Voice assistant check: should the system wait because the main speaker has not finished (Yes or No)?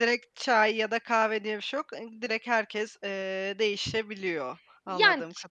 No